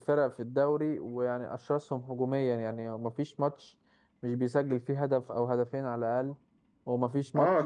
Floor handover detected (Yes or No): Yes